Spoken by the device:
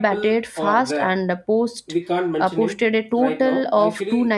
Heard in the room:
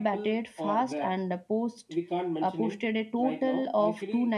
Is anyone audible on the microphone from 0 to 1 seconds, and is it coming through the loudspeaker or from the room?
echo only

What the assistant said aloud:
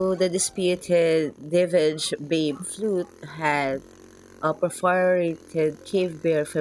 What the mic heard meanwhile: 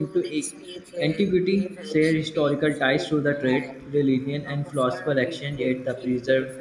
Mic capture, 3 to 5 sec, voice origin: both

